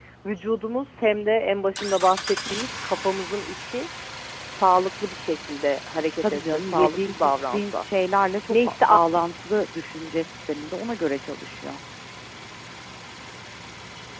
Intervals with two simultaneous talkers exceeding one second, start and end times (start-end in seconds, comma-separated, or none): 6.2-7.8